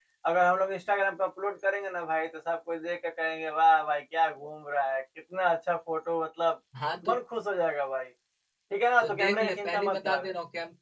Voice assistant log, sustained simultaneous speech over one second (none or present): present